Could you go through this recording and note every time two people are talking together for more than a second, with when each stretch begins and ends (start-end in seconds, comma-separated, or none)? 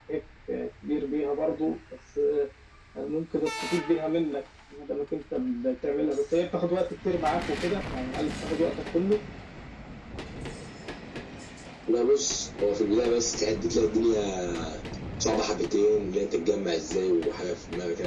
none